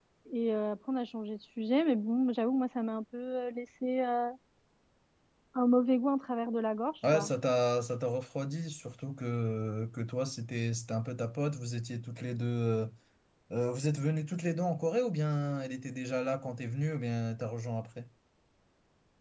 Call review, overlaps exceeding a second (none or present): none